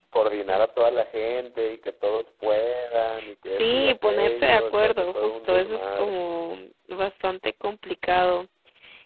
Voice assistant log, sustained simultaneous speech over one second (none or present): present